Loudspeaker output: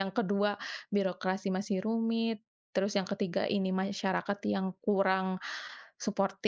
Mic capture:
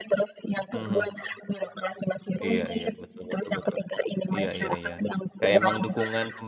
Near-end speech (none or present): present